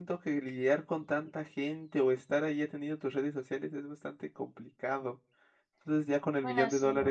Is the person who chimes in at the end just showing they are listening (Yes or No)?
Yes